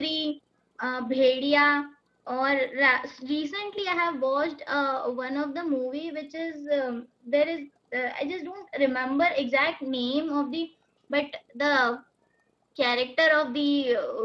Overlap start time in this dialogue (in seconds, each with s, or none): none